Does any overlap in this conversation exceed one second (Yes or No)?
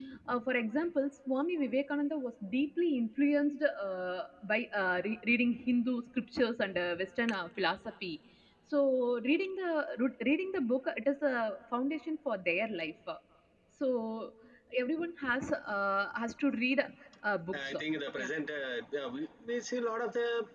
No